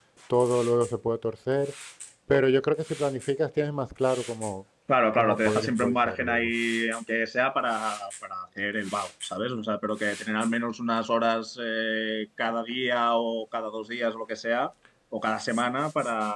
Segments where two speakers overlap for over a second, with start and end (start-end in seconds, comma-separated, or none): 5.2-6.5